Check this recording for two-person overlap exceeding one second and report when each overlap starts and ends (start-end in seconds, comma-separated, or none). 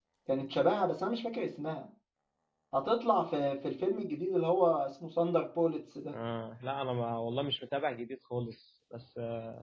none